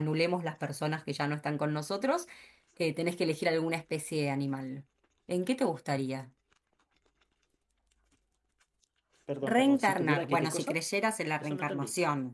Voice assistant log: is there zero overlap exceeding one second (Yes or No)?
No